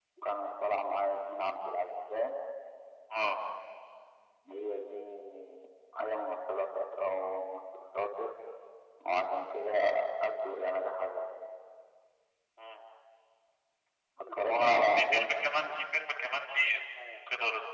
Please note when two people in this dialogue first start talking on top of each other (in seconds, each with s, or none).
14.4 s